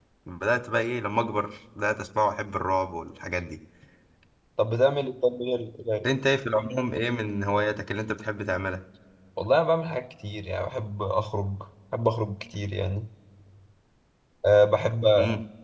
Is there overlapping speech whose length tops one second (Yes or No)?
No